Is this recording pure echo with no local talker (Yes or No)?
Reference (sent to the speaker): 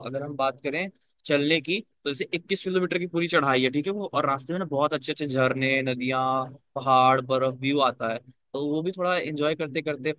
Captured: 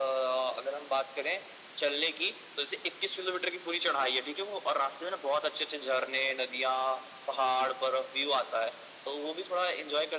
Yes